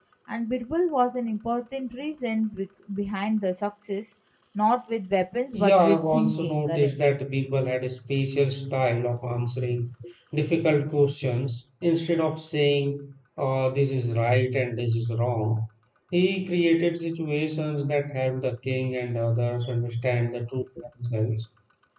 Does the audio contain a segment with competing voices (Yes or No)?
Yes